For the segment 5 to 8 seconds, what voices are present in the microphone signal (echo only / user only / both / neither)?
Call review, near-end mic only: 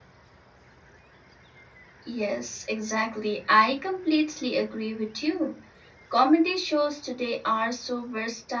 user only